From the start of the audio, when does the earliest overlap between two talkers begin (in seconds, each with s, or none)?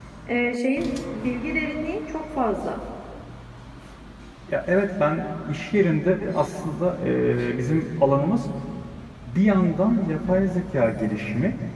none